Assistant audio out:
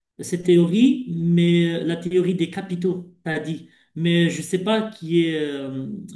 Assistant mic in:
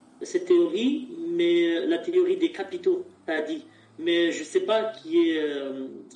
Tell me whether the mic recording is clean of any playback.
No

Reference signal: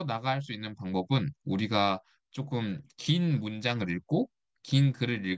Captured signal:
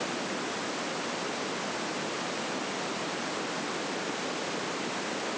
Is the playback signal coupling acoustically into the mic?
No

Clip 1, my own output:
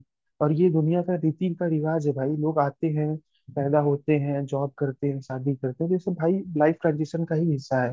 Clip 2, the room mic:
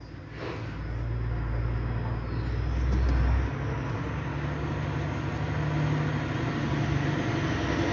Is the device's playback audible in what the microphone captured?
No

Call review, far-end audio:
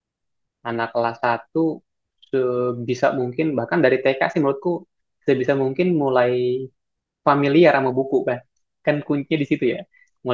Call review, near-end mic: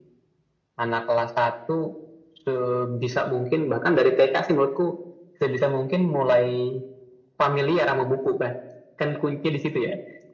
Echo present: Yes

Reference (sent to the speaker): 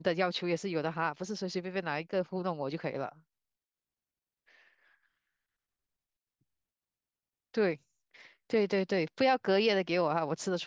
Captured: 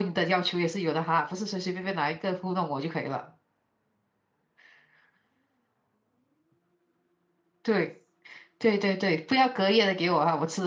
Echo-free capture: No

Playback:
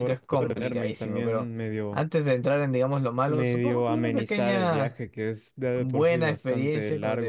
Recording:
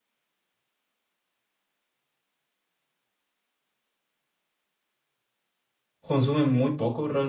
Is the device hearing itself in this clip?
No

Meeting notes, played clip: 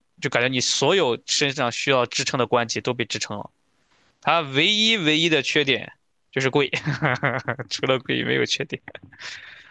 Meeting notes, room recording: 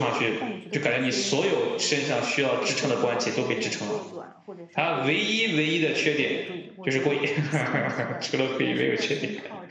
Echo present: Yes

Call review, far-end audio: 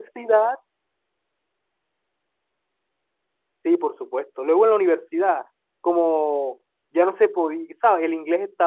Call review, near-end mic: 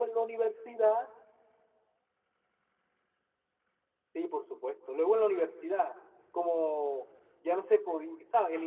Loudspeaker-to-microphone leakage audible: Yes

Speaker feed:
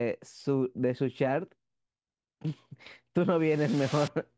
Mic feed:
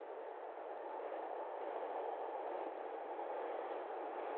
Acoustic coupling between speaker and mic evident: No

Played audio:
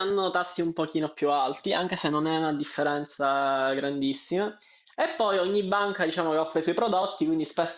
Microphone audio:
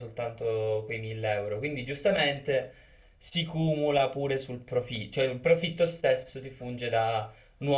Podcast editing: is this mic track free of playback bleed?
Yes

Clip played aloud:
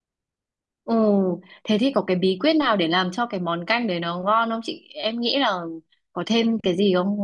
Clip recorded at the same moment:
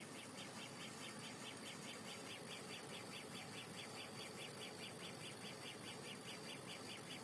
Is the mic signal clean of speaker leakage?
Yes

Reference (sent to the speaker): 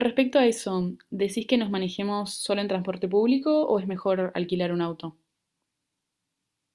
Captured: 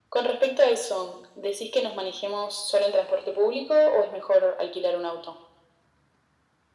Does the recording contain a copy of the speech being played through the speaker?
Yes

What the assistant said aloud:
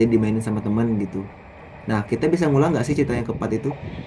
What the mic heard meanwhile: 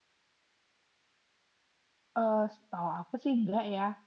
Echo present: No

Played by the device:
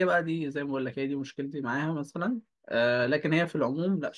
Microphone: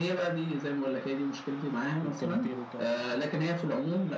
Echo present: Yes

